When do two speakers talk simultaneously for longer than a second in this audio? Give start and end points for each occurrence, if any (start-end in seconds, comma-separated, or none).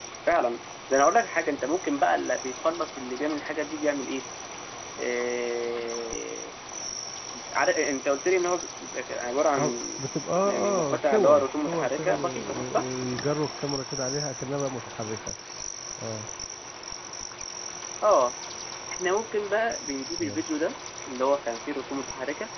10.4-12.9